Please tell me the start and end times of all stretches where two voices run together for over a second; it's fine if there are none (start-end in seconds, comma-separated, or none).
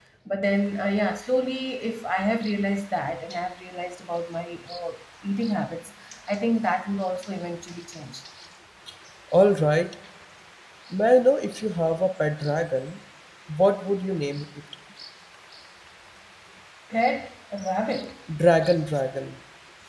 none